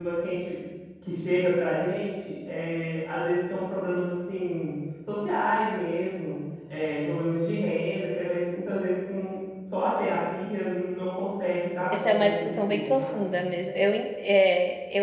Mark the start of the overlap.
11.9 s

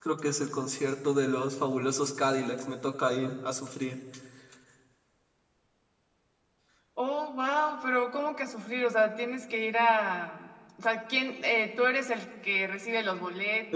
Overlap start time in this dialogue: none

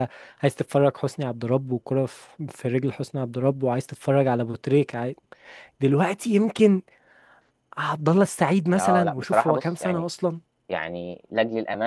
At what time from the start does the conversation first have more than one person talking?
8.7 s

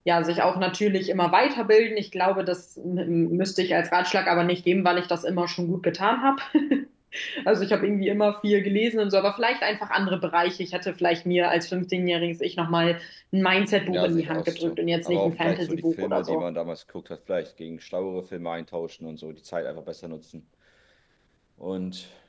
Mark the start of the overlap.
13.9 s

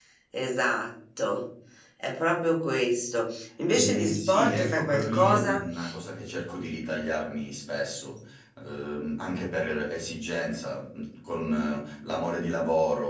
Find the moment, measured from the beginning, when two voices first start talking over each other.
3.7 s

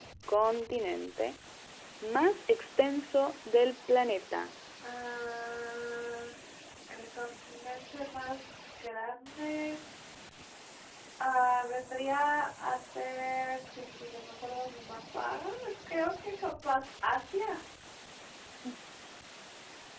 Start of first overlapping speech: none

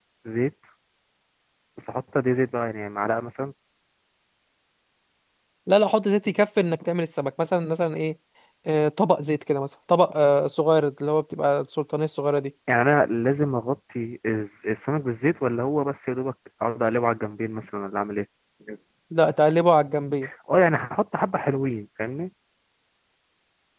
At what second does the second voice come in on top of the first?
none

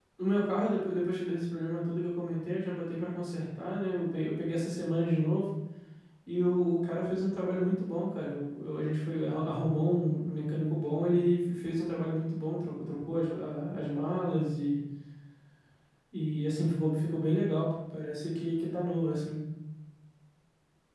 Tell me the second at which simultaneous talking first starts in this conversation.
none

